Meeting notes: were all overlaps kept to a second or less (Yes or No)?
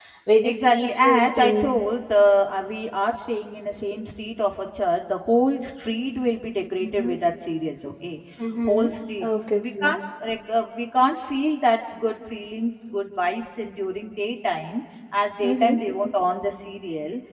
No